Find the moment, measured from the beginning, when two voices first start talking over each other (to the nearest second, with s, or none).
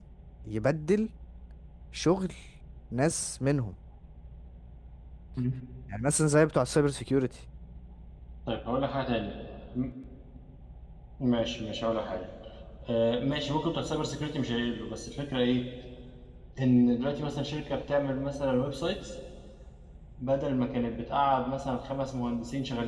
none